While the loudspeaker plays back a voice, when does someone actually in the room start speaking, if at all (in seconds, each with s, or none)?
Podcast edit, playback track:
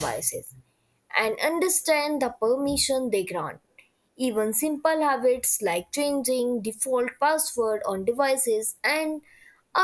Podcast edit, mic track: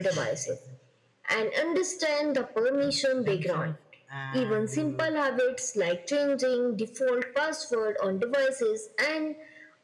3.2 s